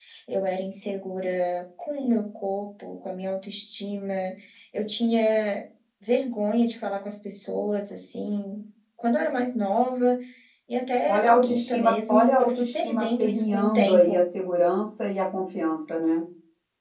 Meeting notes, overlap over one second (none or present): present